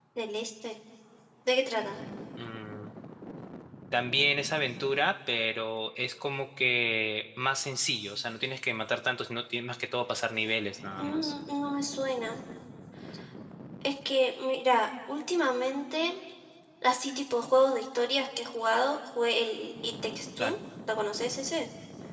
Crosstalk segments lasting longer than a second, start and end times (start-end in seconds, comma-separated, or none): none